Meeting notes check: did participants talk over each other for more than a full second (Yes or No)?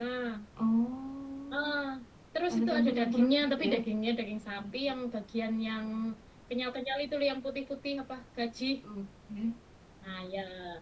Yes